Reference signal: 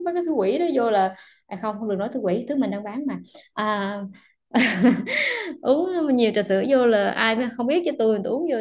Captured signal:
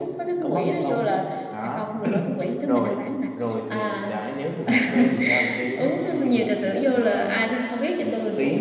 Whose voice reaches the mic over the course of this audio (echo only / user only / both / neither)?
both